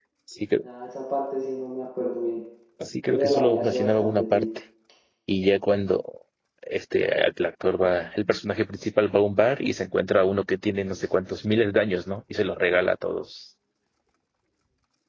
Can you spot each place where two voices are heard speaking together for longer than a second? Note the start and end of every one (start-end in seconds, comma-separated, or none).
3.1-4.5